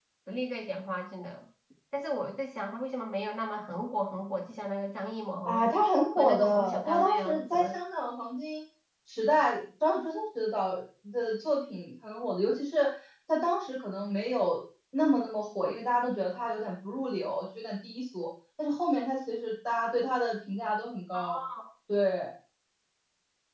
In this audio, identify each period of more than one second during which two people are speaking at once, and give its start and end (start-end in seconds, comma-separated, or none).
6.1-7.7